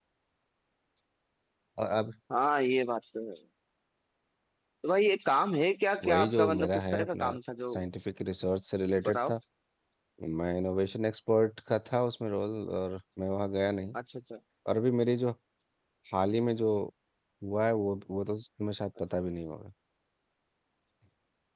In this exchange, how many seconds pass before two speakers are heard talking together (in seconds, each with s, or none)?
6.0 s